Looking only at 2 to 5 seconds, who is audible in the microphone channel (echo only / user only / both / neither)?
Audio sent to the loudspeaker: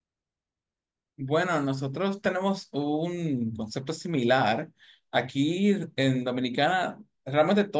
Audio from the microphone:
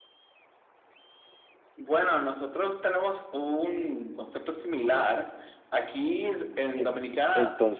echo only